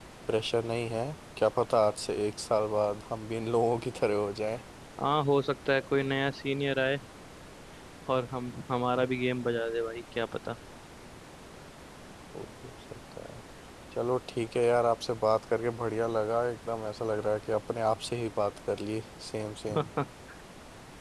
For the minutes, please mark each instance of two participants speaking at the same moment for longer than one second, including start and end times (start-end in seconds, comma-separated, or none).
none